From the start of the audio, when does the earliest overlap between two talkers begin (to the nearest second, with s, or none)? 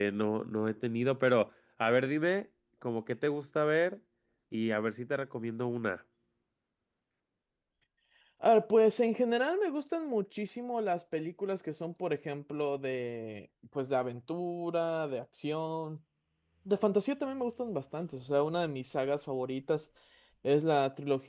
none